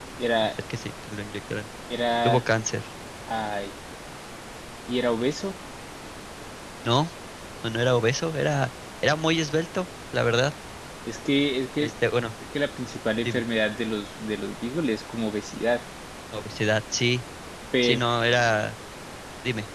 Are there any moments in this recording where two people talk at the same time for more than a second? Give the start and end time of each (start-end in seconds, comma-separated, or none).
none